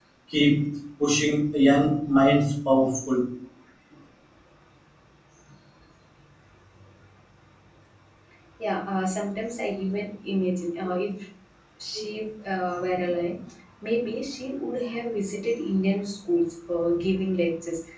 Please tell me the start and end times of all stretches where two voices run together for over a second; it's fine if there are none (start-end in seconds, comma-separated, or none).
none